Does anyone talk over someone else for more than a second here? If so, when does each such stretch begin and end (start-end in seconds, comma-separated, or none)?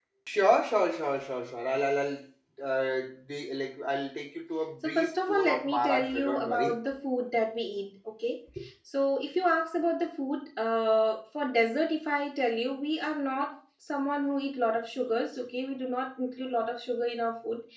4.8-6.7